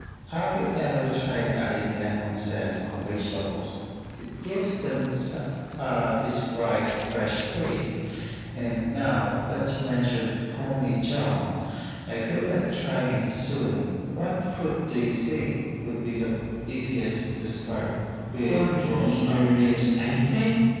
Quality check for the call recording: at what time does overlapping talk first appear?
18 s

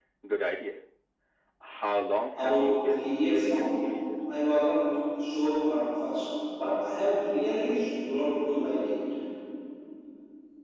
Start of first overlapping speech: 2 s

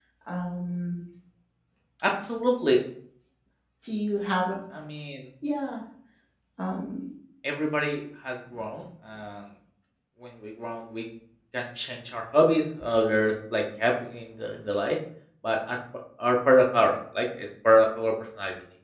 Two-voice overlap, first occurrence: none

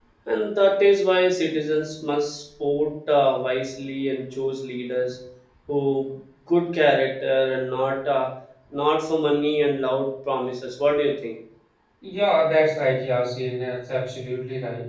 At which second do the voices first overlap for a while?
none

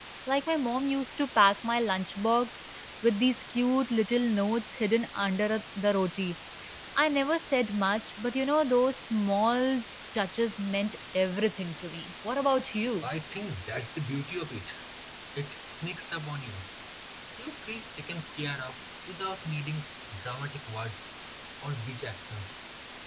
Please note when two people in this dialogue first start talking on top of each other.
none

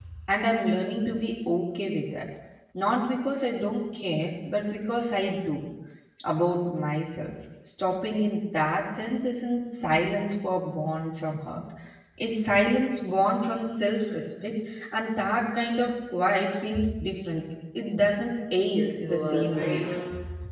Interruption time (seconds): 19 s

